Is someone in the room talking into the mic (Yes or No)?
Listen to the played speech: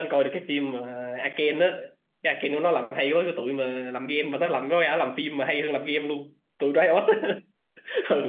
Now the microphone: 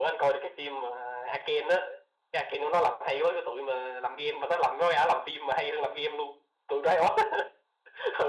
No